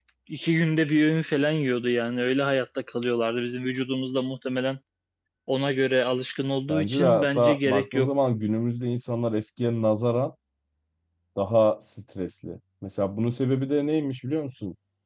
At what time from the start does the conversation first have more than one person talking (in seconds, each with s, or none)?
6.7 s